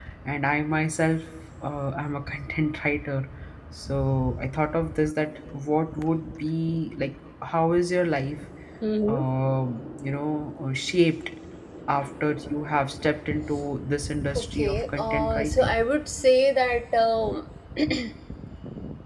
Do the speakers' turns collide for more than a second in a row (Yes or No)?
Yes